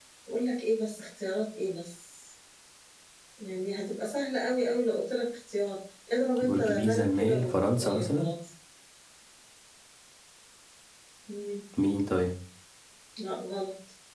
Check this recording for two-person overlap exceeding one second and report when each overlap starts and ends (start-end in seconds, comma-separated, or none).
6.4-8.3